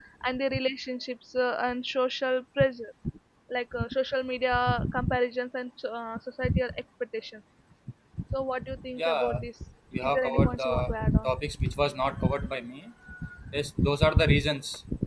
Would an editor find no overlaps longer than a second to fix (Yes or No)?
No